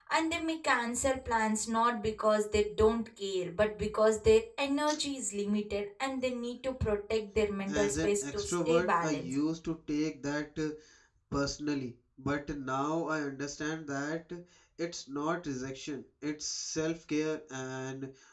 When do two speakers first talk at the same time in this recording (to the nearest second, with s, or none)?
8 s